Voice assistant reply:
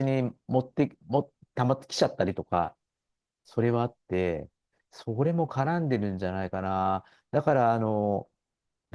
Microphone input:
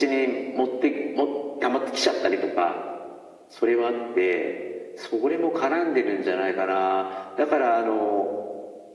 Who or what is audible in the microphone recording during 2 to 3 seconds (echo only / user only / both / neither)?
echo only